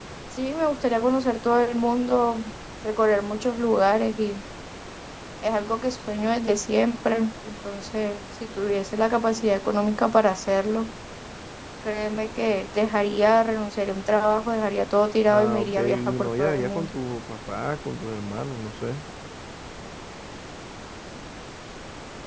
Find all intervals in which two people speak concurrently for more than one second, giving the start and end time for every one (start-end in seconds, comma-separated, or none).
15.3-16.9